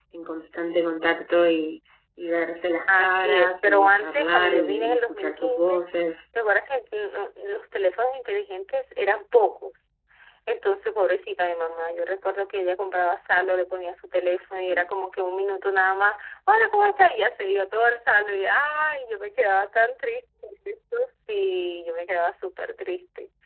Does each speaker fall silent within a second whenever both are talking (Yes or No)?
No